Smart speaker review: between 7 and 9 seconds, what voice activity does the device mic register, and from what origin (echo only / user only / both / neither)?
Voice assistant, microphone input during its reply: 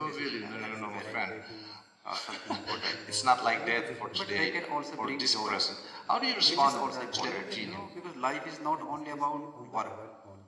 both